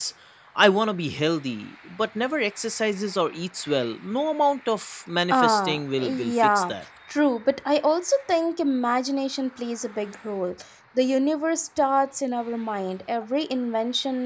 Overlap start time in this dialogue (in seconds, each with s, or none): 5.3 s